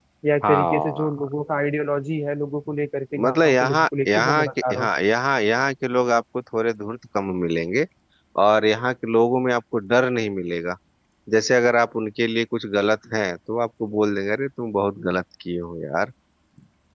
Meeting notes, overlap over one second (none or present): present